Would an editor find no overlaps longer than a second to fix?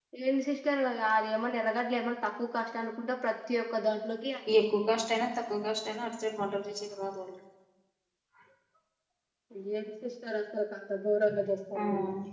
Yes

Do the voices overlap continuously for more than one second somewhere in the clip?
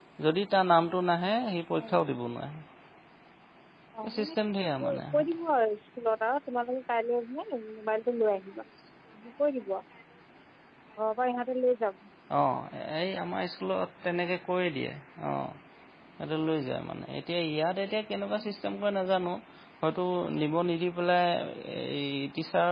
No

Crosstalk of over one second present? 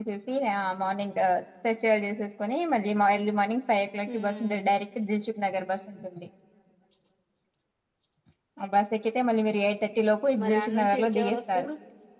Yes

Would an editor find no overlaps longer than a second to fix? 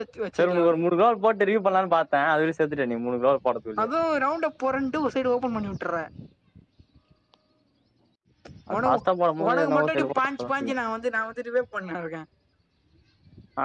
No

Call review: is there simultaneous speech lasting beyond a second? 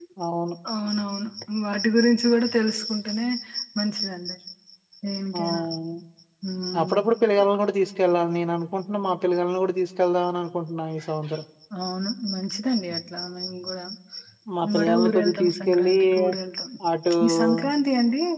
Yes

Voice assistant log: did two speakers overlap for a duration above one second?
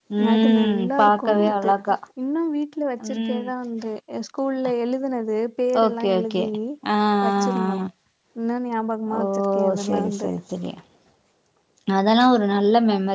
Yes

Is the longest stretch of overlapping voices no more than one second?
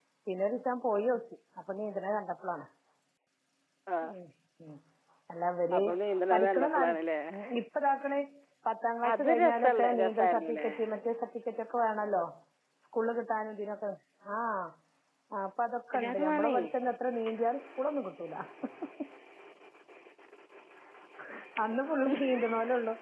No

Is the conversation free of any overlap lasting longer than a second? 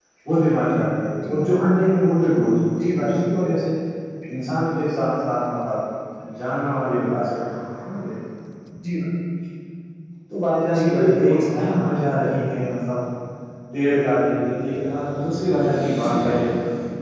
No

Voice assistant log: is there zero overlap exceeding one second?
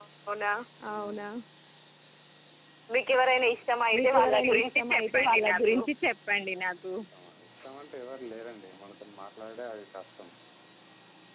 No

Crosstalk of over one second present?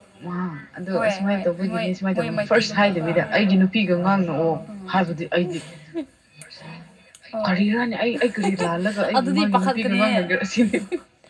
Yes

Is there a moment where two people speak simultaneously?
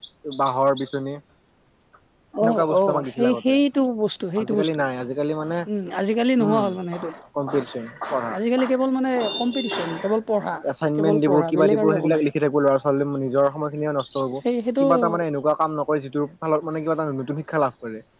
Yes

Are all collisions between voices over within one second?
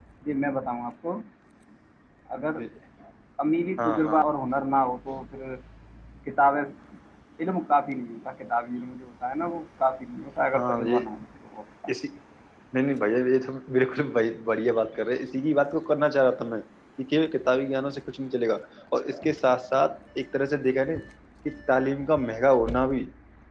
Yes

